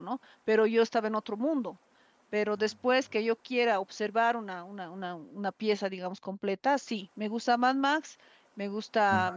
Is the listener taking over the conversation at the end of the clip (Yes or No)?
No